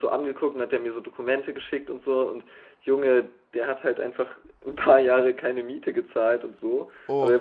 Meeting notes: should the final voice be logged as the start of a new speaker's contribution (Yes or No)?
No